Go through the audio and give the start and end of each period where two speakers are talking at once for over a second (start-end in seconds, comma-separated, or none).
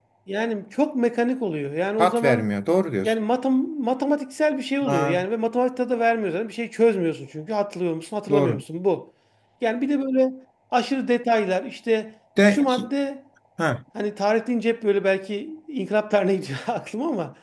none